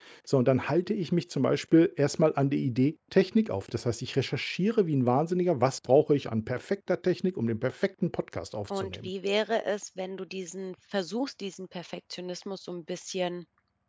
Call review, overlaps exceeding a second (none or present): none